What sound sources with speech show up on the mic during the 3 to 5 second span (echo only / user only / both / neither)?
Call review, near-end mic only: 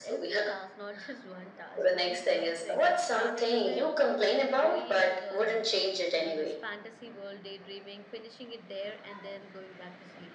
both